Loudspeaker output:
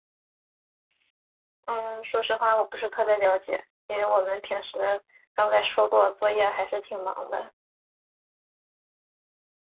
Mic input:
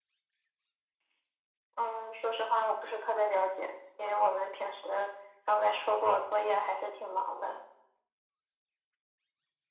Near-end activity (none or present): none